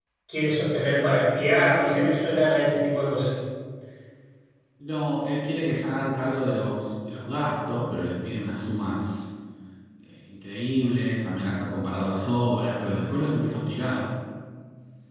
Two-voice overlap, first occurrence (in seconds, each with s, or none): none